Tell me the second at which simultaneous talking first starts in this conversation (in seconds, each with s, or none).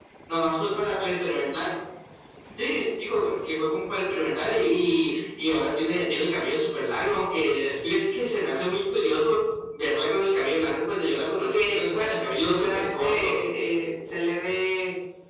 11.5 s